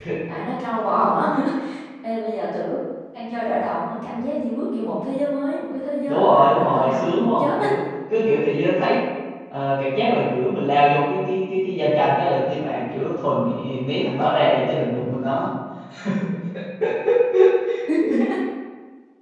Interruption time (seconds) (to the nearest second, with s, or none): 6 s